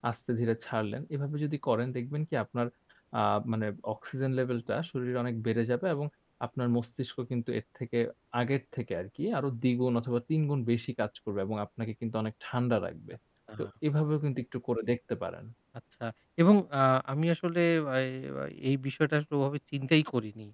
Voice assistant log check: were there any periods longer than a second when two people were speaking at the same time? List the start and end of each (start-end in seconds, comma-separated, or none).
none